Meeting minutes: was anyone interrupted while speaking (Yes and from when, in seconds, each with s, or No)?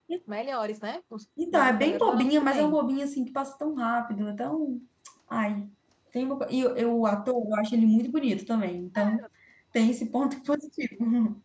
Yes, from 1.5 s